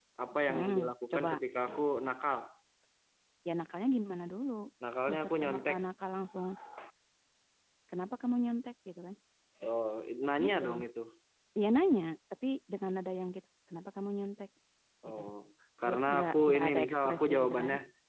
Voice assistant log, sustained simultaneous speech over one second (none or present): present